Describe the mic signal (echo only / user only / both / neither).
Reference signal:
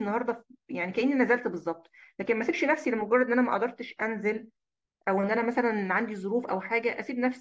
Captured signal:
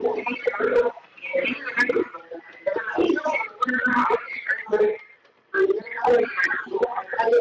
echo only